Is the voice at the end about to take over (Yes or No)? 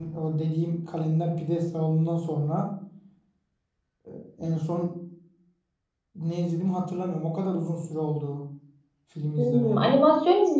Yes